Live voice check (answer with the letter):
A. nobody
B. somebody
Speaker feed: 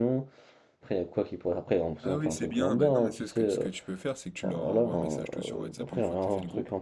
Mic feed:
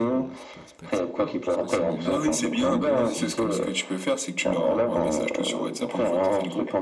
B